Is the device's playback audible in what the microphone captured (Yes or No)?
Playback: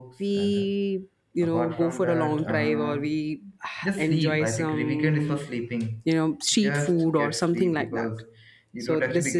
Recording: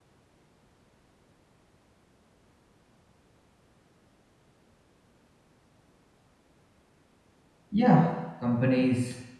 No